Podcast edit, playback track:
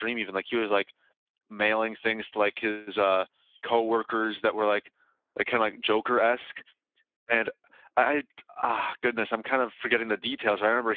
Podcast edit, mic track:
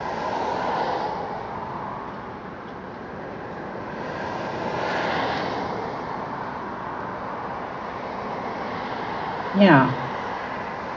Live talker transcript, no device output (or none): Yeah.